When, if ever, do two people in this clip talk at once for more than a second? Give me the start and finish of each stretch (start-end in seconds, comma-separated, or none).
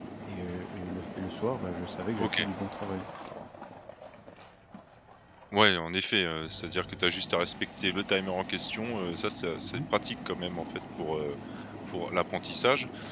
none